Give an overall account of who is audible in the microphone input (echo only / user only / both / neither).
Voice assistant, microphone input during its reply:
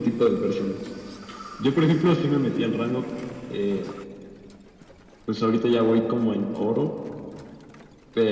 echo only